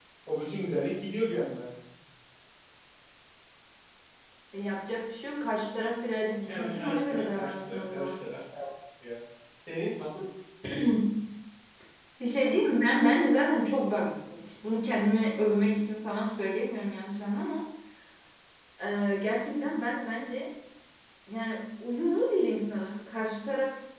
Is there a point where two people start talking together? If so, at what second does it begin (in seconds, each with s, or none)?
6.5 s